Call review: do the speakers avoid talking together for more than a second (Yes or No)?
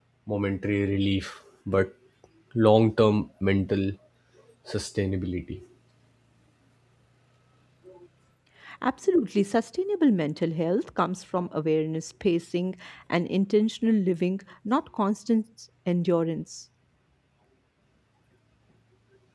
Yes